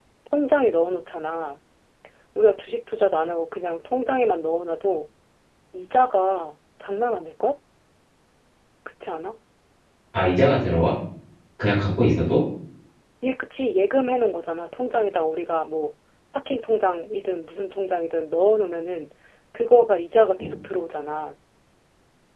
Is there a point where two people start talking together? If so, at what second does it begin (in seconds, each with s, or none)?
none